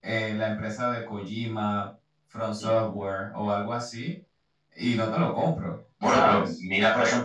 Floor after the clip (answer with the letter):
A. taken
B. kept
A